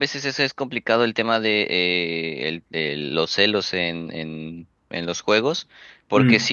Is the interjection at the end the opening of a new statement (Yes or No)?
No